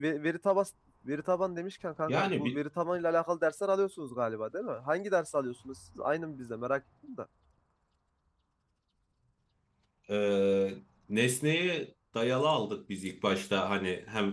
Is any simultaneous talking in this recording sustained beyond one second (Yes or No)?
No